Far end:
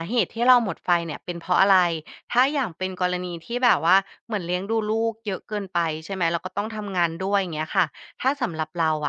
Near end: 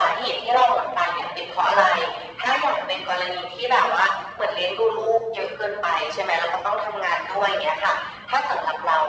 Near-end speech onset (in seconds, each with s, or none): none